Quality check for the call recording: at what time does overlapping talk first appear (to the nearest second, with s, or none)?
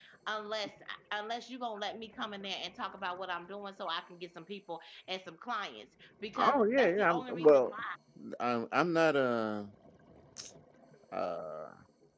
6 s